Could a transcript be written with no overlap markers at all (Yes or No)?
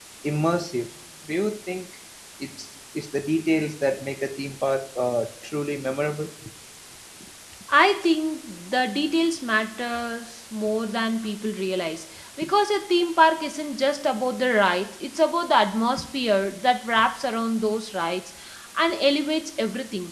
Yes